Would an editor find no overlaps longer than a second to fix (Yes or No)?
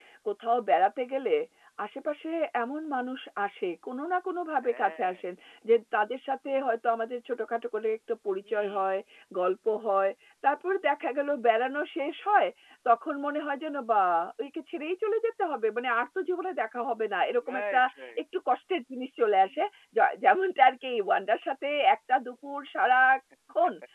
Yes